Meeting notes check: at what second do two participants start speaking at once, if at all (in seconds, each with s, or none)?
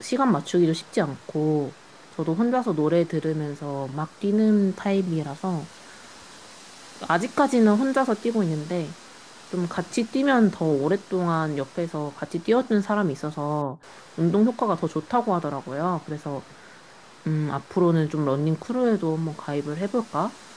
none